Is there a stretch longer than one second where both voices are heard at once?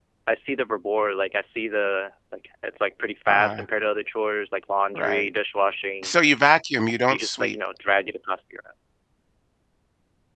No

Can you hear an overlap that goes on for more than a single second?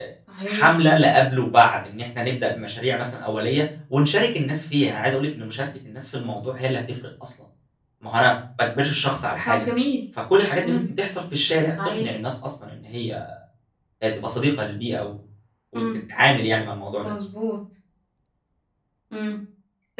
No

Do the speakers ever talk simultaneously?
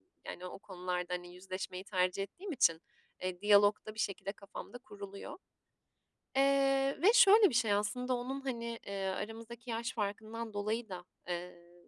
No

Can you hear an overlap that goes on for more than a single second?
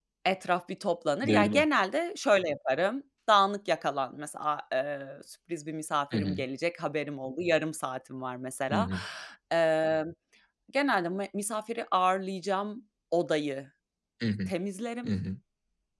No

